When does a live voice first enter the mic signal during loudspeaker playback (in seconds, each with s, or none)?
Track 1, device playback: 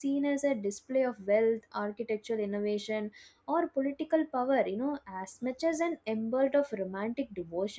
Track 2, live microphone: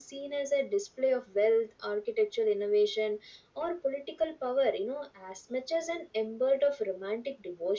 none